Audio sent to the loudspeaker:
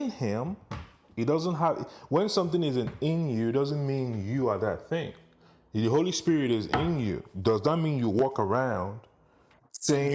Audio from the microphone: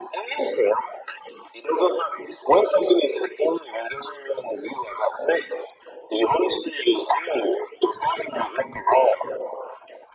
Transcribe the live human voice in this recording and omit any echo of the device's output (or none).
none